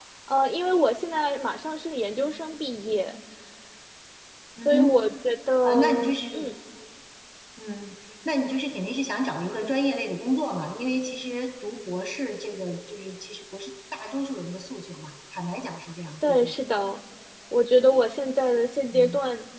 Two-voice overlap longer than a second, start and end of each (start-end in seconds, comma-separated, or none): none